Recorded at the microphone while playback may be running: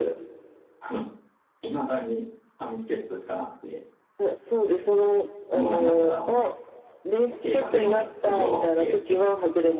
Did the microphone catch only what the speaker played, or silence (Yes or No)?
No